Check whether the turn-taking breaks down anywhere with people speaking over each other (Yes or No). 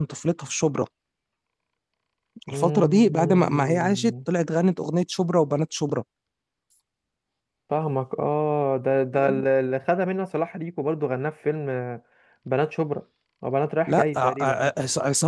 Yes